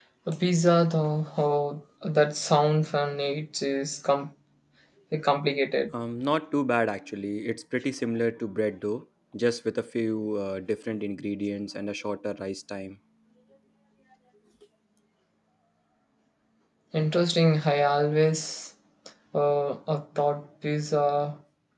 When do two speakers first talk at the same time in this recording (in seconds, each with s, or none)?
none